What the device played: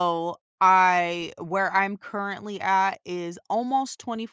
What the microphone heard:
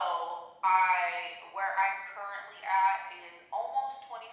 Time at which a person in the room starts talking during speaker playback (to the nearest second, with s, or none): none